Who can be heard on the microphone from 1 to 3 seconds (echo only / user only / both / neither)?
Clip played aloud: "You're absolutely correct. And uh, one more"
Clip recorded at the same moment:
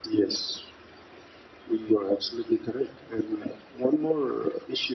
echo only